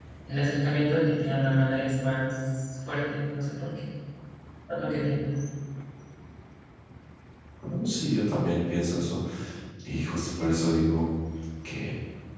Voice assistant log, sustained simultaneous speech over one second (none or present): none